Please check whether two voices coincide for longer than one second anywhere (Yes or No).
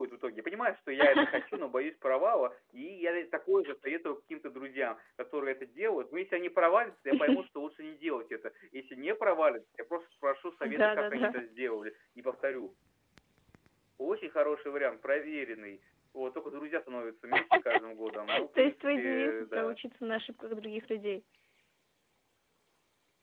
Yes